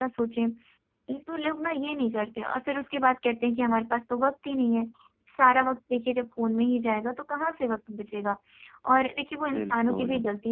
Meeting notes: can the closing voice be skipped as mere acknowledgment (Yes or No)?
Yes